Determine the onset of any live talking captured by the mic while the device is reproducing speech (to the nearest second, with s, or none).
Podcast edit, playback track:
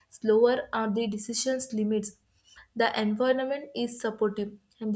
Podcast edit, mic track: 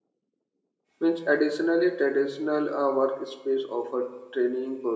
1 s